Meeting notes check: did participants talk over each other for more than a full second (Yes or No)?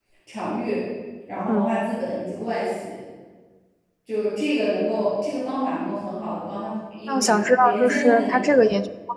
Yes